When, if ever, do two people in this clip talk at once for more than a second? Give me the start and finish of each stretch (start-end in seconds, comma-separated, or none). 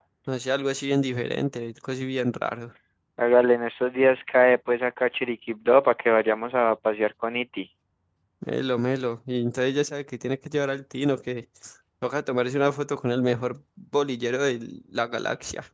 none